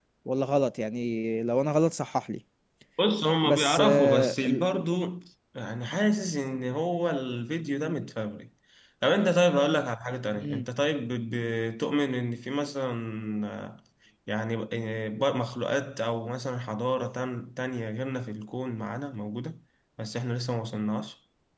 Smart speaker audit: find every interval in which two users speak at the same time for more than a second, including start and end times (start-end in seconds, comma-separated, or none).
3.4-4.6